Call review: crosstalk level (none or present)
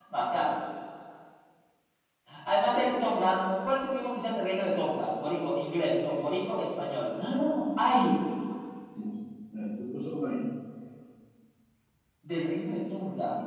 none